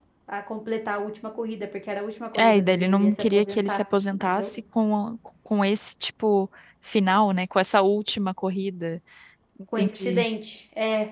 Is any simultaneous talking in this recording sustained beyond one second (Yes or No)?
Yes